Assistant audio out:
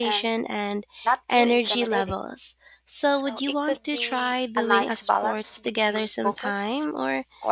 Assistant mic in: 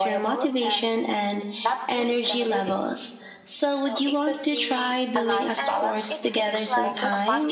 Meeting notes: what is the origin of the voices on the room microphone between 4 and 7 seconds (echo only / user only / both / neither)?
both